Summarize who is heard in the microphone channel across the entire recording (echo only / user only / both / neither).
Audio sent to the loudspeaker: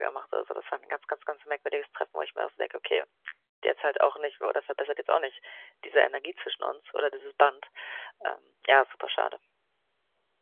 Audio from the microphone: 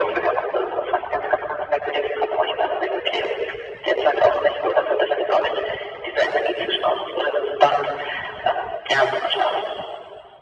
echo only